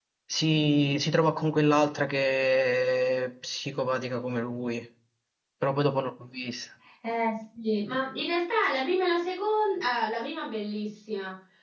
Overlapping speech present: No

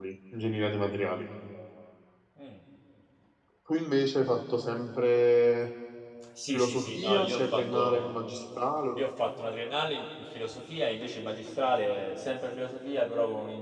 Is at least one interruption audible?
Yes, from 6.5 s

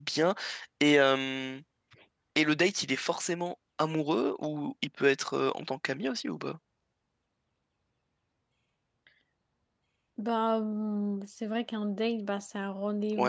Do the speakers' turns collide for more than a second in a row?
No

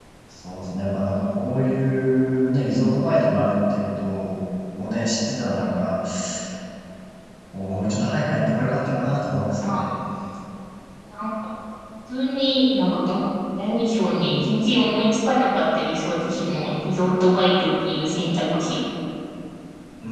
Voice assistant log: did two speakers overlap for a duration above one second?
No

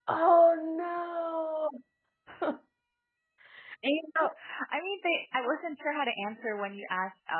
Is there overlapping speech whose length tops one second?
No

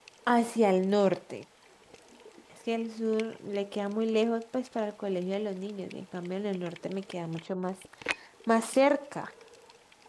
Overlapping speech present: No

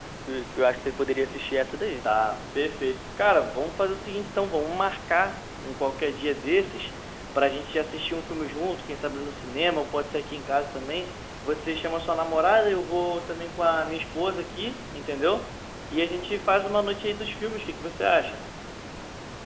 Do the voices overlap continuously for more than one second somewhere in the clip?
No

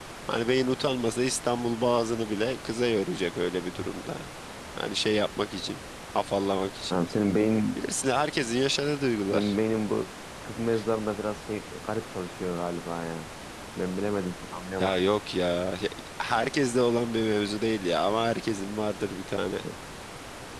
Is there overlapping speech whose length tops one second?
No

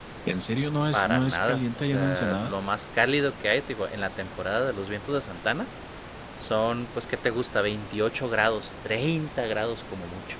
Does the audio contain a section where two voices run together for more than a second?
Yes, from 0.9 s

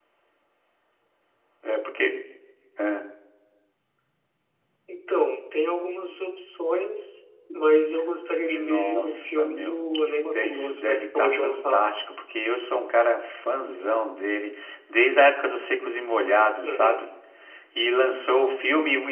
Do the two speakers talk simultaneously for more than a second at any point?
Yes, from 8.4 s

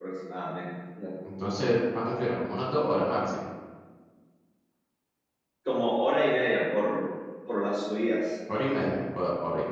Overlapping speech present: No

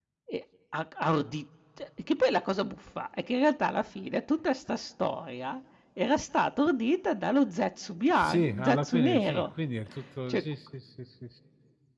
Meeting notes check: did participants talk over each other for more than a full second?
Yes, from 8.2 s

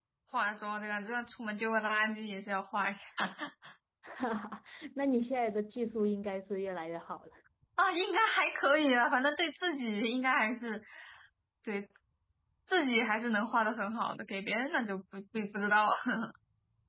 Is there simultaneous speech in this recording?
No

